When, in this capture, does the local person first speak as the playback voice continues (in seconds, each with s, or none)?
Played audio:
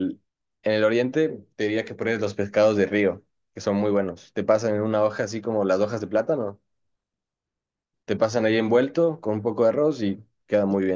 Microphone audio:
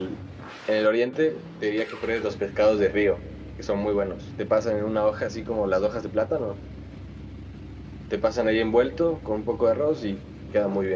none